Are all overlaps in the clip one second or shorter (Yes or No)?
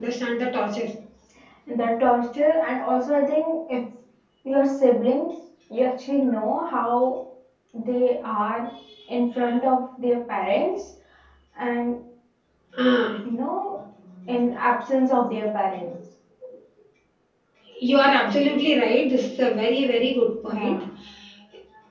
Yes